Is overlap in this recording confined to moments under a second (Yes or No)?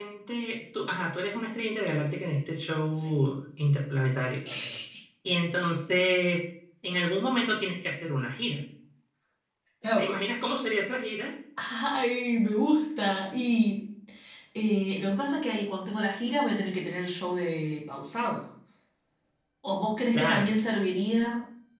Yes